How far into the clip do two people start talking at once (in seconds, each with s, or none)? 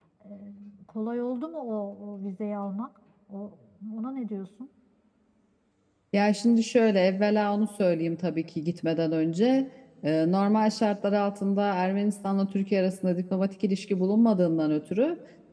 none